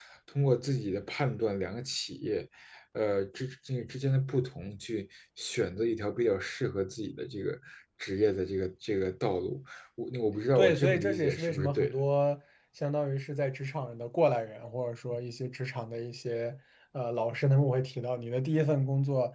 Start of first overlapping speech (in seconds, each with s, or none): 10.6 s